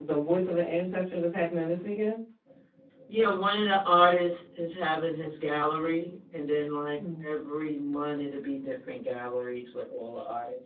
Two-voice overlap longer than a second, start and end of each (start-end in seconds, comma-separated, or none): none